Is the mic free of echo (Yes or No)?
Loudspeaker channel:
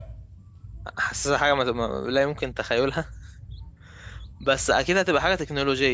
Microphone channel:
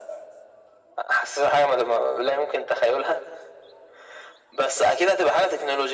No